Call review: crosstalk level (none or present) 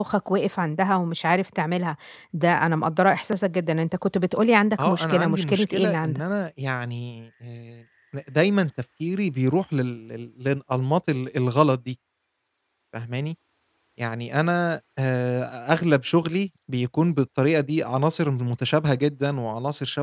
present